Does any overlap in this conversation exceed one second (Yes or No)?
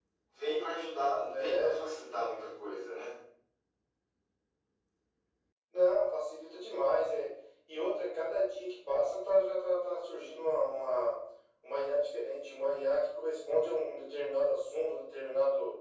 No